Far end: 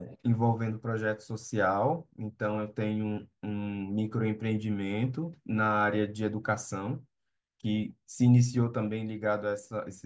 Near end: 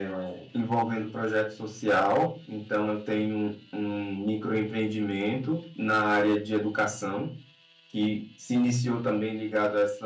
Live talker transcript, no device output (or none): none